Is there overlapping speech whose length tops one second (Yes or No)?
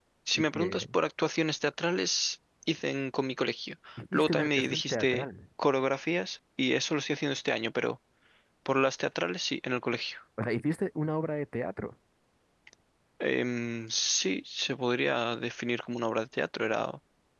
Yes